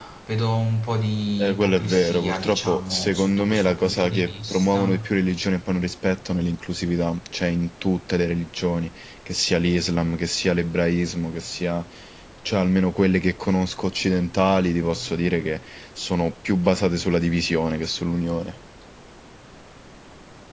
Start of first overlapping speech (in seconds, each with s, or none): 1.4 s